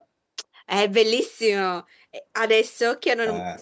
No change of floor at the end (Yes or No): Yes